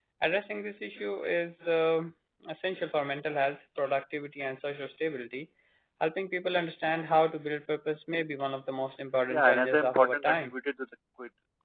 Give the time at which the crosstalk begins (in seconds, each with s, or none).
9.3 s